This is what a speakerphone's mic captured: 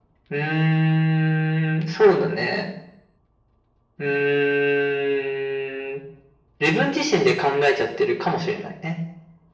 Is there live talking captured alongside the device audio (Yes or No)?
No